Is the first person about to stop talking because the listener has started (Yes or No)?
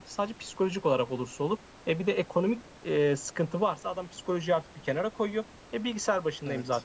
No